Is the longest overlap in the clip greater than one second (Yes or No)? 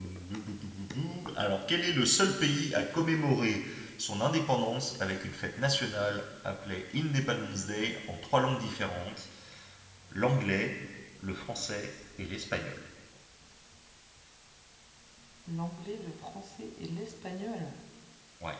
No